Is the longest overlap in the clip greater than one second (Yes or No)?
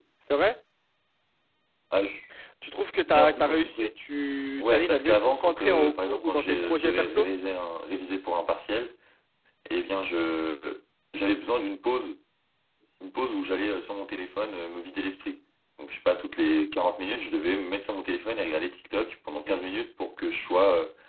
Yes